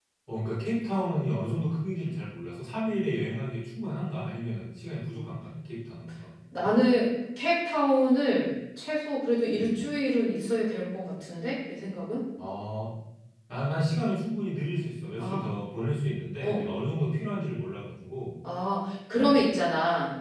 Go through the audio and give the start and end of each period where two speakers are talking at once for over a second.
none

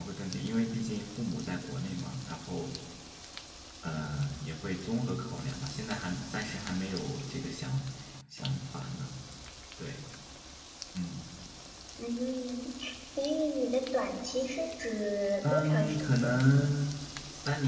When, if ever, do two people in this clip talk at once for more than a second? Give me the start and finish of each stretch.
15.4-16.7

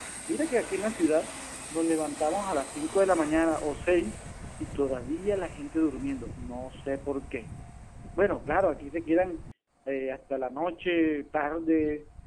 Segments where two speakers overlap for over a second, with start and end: none

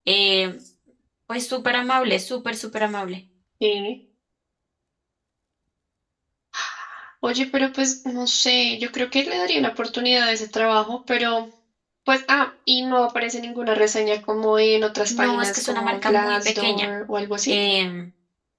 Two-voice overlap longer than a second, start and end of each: 15.1-16.9

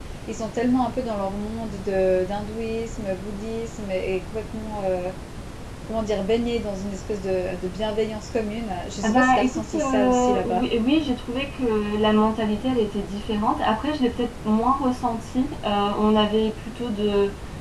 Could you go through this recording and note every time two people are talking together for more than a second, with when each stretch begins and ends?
9.0-10.6

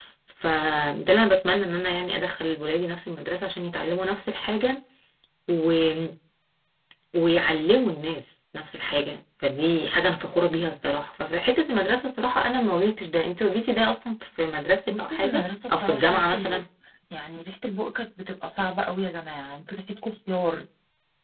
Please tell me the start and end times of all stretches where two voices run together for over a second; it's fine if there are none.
15.0-16.6

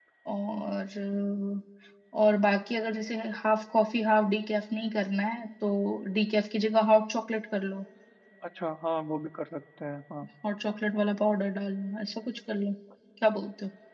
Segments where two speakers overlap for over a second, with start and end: none

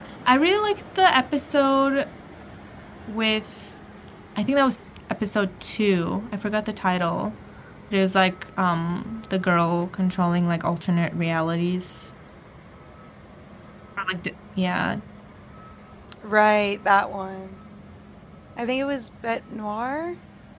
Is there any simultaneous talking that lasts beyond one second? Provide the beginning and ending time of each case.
none

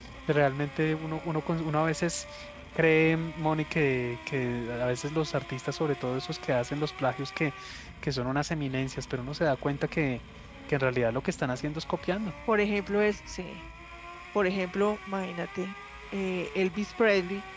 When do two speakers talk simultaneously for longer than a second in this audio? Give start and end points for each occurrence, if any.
none

